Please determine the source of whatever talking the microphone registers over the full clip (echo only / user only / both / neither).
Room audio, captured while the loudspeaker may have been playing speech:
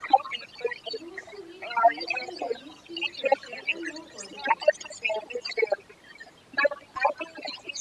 both